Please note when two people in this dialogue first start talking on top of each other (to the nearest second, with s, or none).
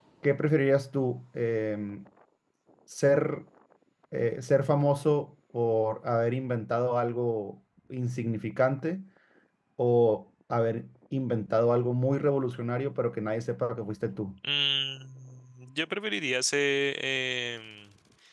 none